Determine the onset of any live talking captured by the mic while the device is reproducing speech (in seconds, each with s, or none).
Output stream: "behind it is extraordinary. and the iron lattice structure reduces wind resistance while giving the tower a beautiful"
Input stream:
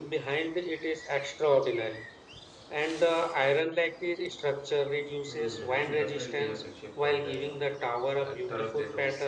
5.2 s